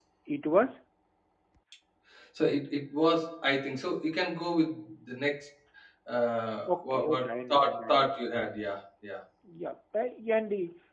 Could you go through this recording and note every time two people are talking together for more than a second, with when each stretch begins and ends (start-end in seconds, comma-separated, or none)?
6.7-8.1